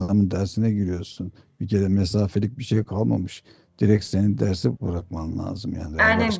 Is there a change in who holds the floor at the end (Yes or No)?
Yes